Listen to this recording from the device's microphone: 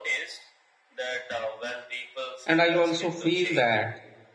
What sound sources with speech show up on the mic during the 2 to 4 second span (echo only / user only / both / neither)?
both